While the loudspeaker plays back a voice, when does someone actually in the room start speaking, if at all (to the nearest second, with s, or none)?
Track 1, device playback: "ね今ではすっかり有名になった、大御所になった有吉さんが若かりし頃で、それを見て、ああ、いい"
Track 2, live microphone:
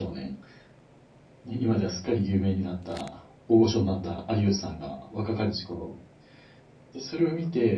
none